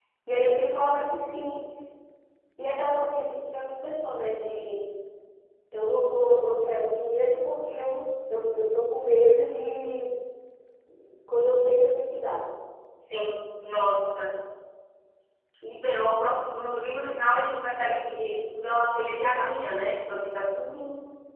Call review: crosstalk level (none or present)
none